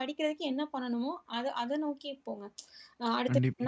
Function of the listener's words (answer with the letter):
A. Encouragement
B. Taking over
A